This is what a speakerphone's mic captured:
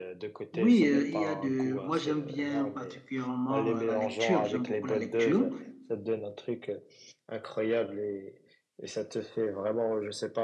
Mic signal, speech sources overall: both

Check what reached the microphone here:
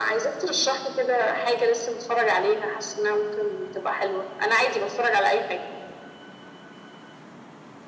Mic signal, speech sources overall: echo only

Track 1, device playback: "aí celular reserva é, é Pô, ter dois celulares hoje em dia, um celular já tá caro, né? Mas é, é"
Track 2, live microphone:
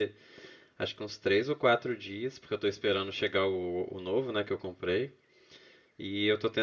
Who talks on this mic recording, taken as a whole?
user only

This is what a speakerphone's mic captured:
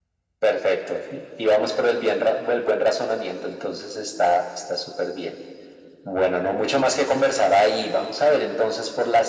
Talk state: echo only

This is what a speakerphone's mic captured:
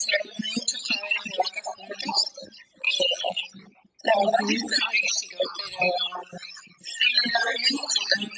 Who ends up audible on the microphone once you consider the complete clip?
both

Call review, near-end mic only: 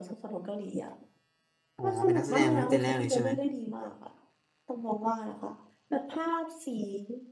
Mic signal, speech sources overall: both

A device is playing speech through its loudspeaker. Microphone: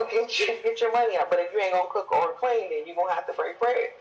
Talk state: echo only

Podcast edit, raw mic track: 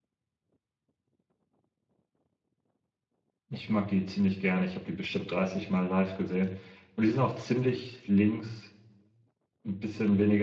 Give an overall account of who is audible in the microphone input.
user only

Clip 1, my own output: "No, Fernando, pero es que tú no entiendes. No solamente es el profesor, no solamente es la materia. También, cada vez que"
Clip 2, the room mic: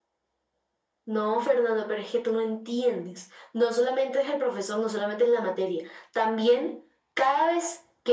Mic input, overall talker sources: echo only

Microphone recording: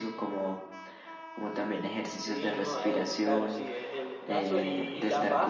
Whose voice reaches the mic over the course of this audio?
both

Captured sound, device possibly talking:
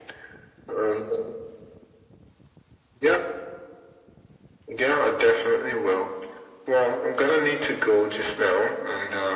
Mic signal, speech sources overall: echo only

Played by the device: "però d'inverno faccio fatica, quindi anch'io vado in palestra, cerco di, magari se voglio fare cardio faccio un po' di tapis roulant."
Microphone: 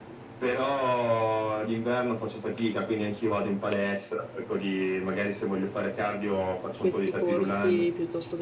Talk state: both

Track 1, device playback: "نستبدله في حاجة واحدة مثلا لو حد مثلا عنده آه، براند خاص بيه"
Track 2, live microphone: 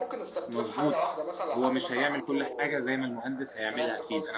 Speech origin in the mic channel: both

